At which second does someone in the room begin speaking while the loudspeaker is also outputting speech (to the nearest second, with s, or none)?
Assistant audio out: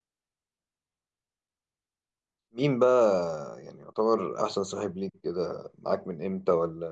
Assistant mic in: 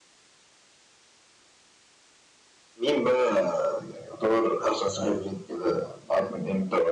none